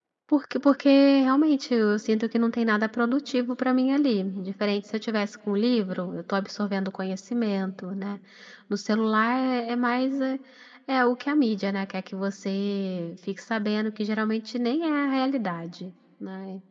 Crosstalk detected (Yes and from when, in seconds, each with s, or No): No